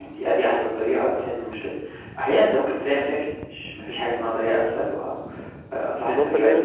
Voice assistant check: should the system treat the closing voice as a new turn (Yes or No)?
Yes